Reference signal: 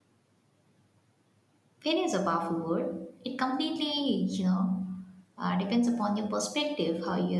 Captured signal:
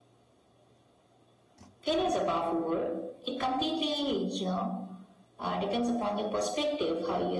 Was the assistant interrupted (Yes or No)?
No